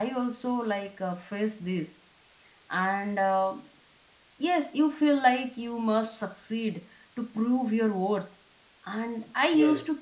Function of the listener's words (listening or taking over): listening